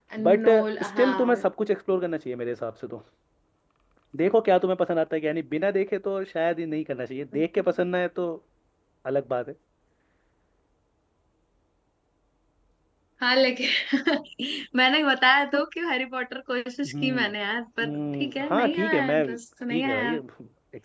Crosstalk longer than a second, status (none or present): present